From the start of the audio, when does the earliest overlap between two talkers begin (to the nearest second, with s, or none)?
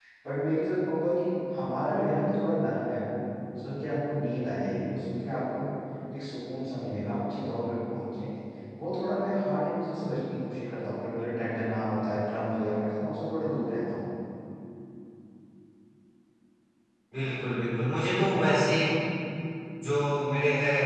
none